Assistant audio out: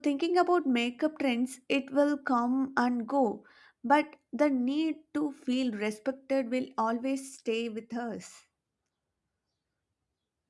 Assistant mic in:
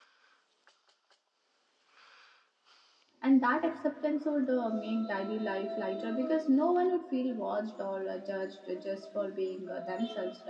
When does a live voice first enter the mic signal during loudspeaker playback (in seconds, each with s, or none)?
3.2 s